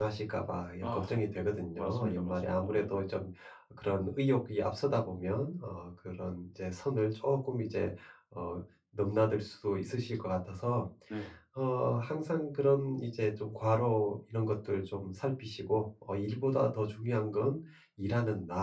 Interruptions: present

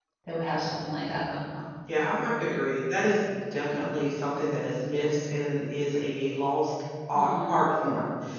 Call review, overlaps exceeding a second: none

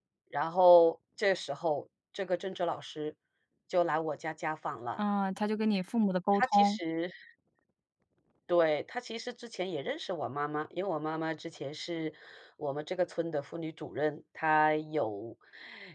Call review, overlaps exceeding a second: none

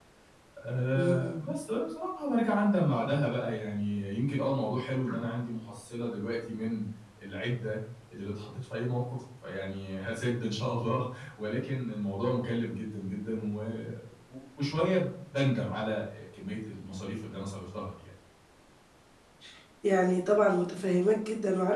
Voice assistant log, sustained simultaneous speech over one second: none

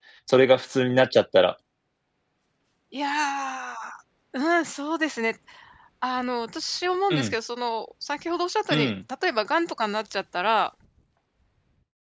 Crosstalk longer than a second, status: none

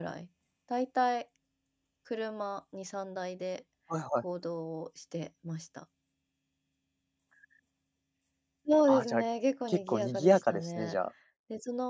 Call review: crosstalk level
present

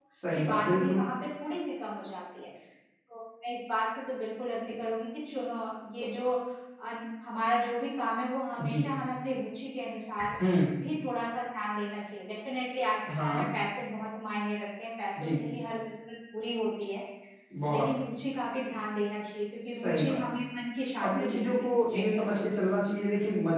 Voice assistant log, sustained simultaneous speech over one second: present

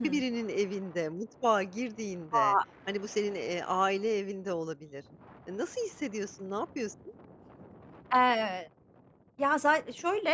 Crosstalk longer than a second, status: none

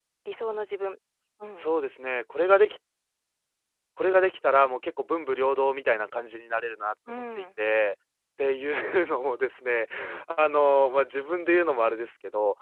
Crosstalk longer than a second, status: none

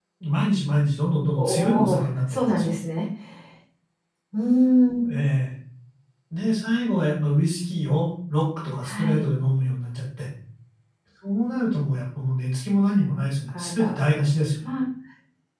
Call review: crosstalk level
present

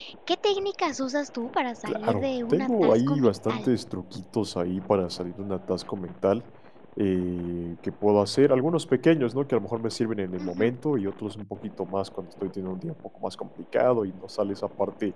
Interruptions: present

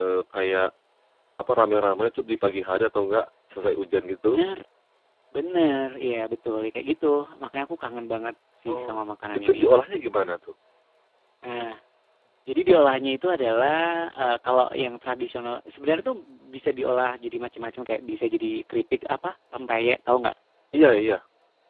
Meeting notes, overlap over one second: none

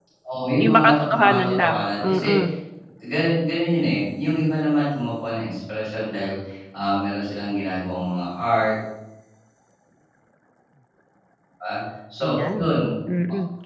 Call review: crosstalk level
present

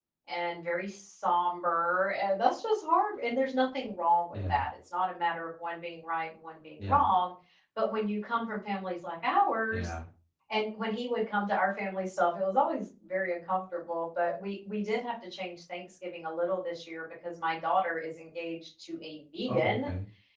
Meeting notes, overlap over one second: none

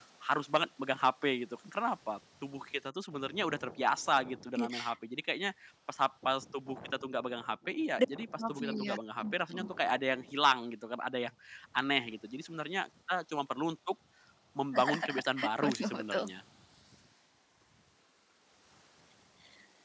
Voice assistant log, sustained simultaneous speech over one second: present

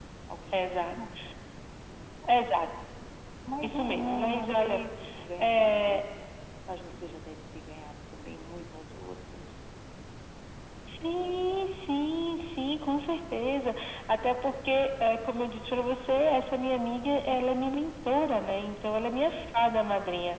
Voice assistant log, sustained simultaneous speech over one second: present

